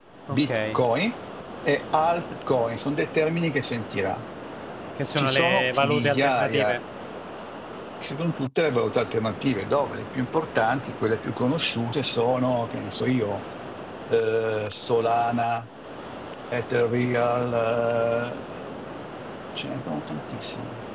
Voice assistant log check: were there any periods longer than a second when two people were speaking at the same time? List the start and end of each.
5.2-6.8

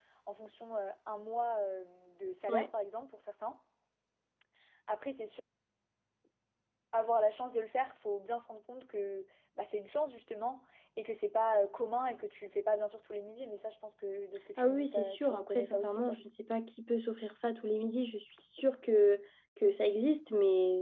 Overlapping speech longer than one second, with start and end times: 14.6-16.2

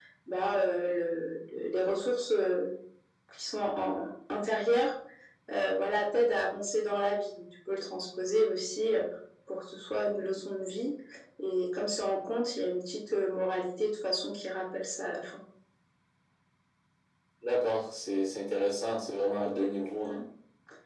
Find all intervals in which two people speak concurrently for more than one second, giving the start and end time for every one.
none

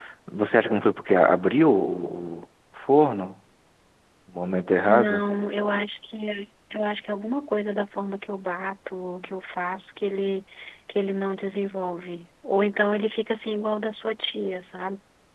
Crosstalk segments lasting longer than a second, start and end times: none

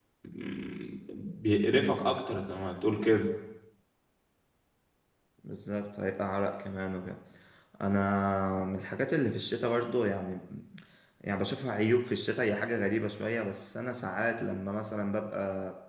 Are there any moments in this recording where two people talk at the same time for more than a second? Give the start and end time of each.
none

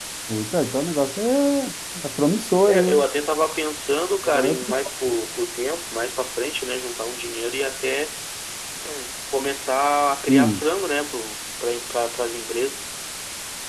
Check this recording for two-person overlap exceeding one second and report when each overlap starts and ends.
none

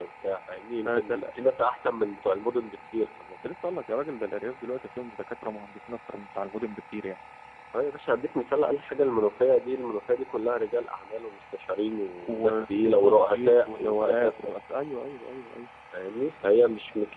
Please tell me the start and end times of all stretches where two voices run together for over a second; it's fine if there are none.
12.2-14.3

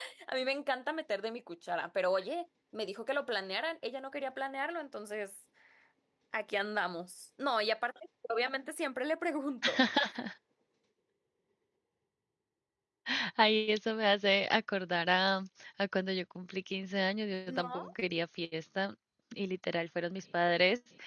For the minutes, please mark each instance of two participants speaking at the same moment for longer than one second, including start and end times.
none

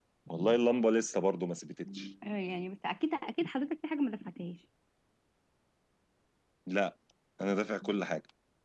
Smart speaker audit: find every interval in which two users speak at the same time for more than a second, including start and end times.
none

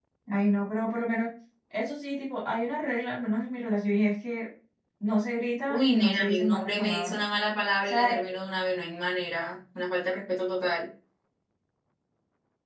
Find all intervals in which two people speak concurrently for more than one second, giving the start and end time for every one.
5.7-7.2

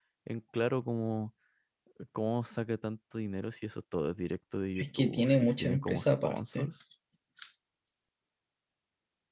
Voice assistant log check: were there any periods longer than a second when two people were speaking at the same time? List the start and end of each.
4.8-6.7

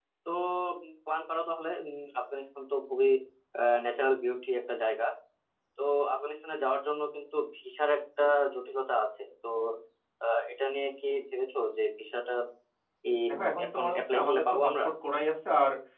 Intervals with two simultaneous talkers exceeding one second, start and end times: 13.3-14.8

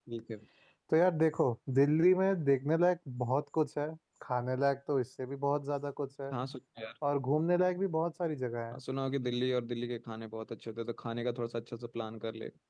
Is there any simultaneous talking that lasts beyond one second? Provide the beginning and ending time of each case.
none

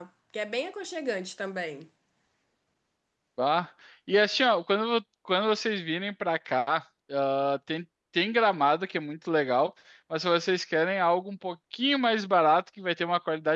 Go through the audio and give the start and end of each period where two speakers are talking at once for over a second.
none

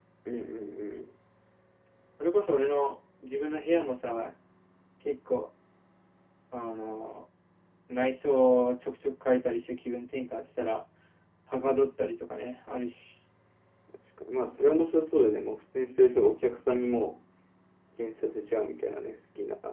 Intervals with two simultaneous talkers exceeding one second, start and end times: none

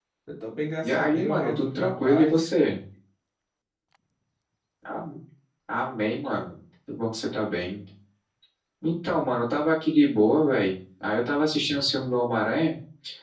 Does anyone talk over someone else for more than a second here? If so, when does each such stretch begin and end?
0.8-2.5

